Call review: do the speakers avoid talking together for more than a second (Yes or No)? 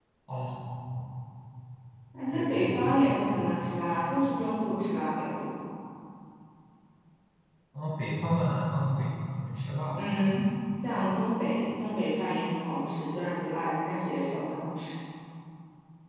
No